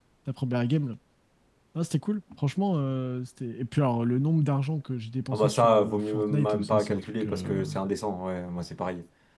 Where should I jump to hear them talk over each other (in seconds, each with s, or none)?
5.3 s